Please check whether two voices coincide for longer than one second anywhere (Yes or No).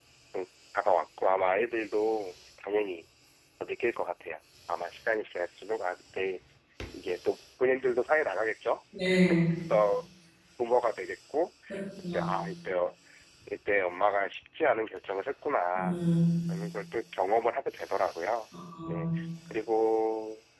No